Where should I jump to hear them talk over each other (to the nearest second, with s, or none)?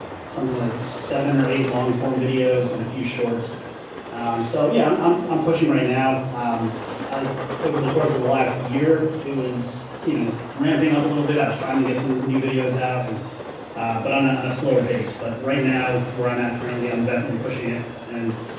none